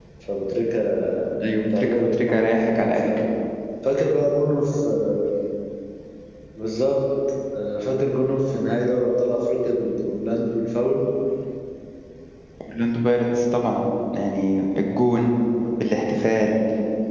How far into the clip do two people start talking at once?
1 s

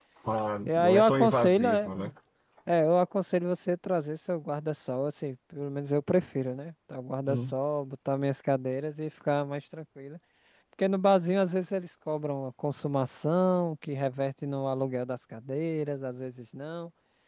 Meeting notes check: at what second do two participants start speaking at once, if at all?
1 s

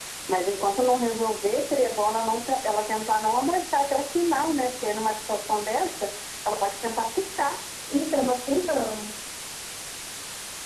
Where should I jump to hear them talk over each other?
none

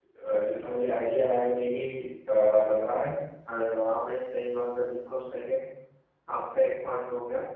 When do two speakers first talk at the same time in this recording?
none

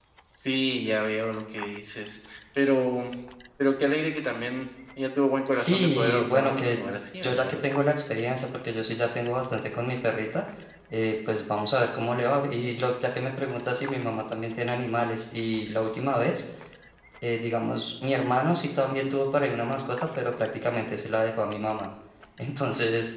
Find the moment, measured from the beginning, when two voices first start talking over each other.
6 s

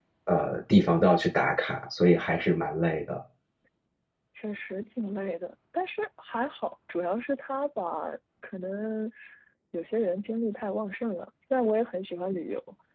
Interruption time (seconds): none

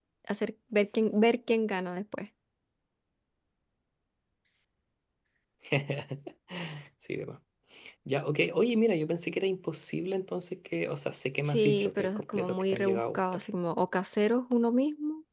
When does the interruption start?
11 s

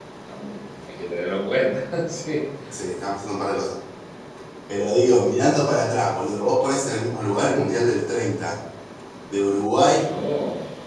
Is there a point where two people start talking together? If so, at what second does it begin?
none

